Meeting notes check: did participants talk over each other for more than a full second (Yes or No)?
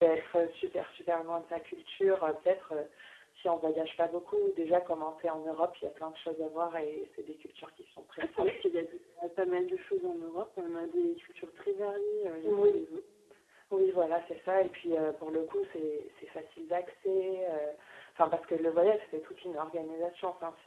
No